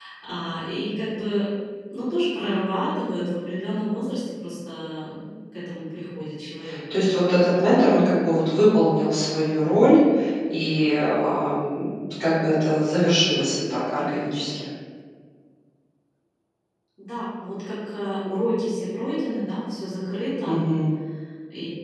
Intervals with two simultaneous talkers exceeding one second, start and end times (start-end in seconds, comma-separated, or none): none